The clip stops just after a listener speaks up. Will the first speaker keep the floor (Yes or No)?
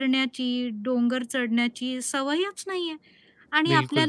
Yes